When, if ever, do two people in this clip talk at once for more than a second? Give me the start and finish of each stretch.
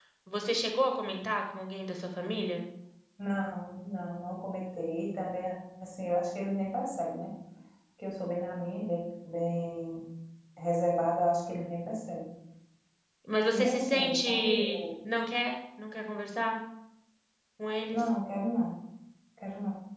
13.5-14.8

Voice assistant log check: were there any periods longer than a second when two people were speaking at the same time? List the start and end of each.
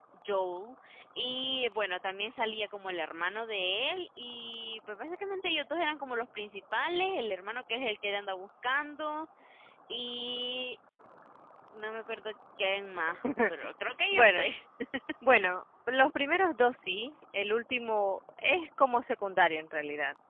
none

